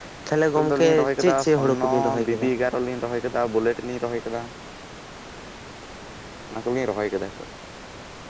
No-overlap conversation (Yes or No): No